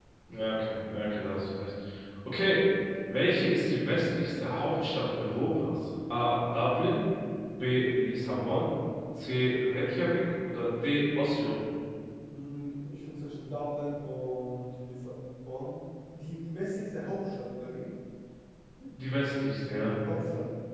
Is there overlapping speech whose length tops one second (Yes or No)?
No